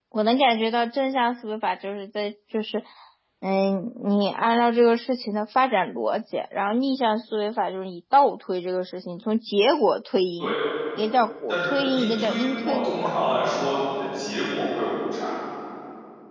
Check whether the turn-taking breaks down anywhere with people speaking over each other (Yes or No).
Yes